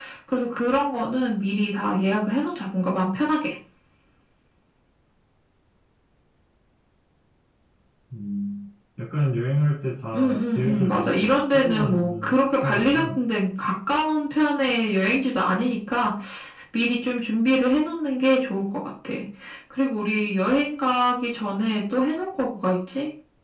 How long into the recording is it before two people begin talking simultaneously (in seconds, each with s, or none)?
10.1 s